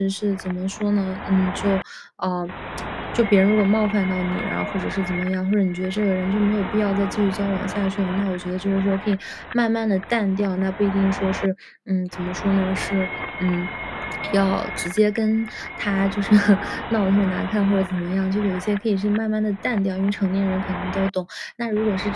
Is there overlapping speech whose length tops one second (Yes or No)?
No